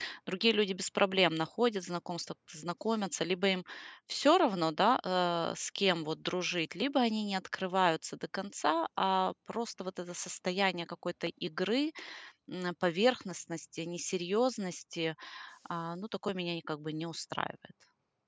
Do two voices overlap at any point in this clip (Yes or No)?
No